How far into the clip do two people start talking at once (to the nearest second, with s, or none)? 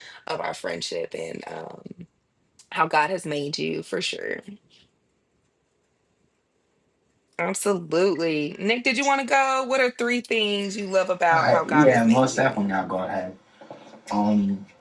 11 s